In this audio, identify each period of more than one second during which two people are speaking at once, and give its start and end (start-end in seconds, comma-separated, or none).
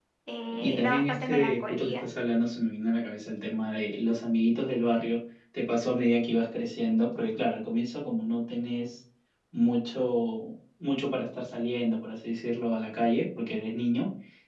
0.5-2.0